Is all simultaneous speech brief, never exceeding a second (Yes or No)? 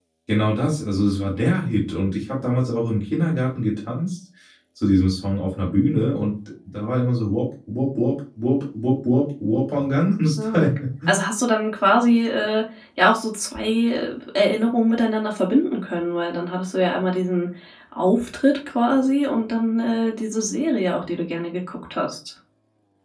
Yes